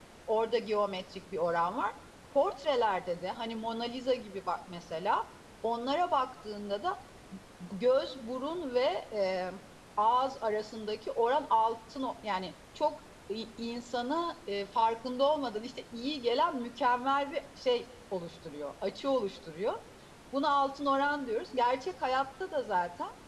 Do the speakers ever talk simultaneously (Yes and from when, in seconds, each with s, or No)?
No